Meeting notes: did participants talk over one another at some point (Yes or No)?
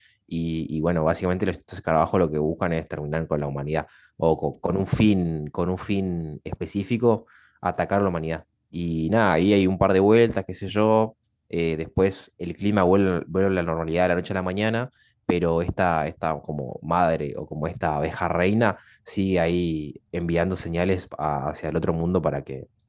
No